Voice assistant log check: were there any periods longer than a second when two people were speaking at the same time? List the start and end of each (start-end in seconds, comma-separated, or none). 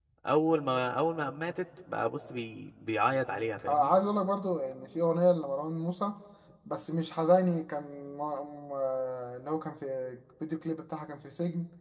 none